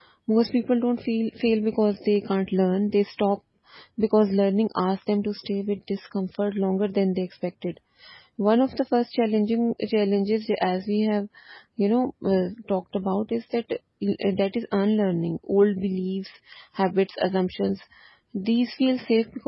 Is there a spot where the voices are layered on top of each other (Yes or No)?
No